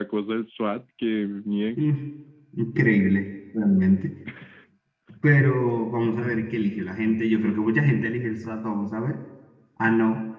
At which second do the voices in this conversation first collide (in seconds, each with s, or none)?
none